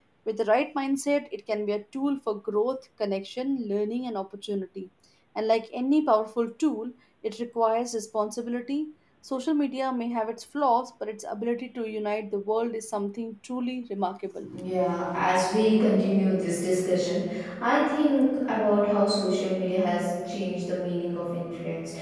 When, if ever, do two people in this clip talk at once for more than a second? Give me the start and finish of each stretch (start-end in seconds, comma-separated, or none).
none